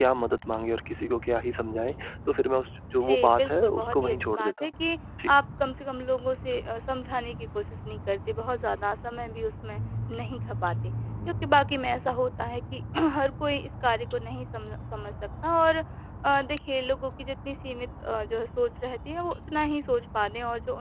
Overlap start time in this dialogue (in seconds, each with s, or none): 3.0 s